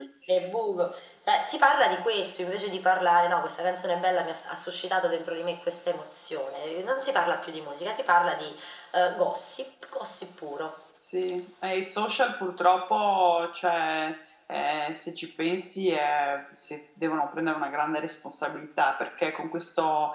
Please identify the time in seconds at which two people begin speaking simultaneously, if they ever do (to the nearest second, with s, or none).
none